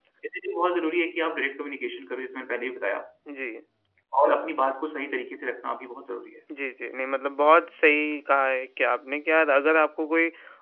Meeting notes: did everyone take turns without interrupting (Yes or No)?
Yes